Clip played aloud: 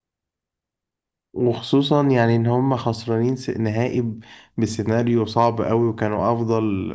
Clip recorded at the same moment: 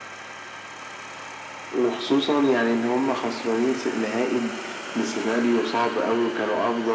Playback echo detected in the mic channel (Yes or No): Yes